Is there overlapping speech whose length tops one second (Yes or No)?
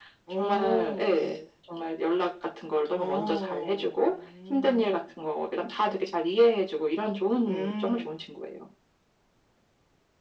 Yes